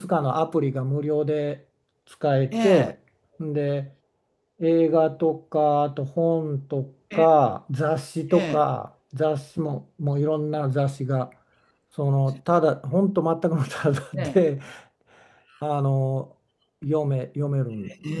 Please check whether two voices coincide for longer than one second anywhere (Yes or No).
No